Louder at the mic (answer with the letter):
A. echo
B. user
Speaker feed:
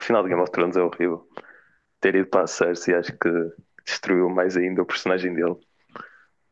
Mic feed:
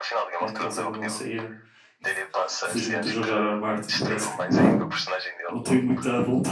B